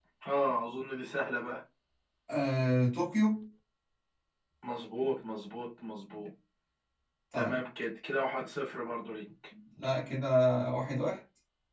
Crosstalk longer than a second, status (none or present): none